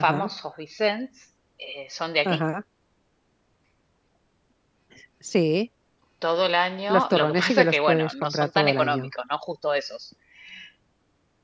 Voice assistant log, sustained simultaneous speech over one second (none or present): present